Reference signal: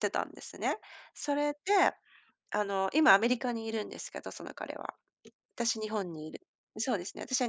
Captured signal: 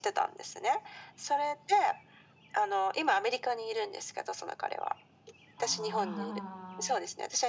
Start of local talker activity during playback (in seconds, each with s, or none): 5.5 s